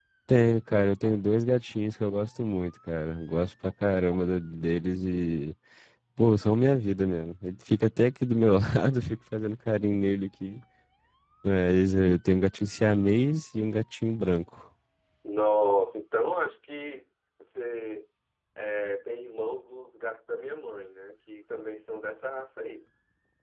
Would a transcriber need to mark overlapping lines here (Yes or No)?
No